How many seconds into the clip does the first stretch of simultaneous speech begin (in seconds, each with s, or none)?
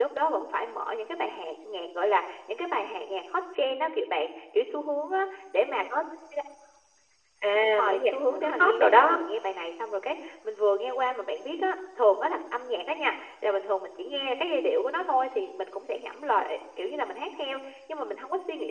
7.8 s